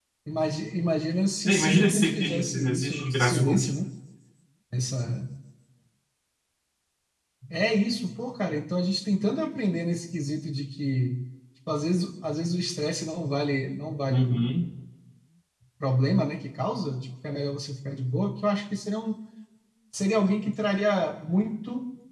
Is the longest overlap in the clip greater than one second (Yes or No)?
Yes